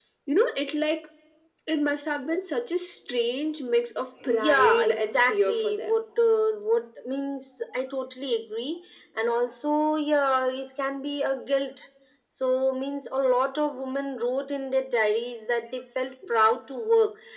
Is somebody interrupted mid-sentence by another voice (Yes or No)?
Yes